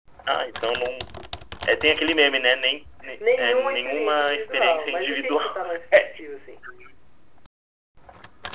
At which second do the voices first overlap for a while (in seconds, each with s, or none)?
3.2 s